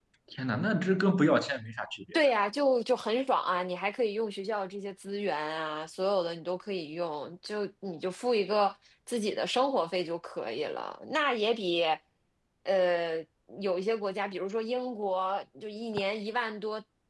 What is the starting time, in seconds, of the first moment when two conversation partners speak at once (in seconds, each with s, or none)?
none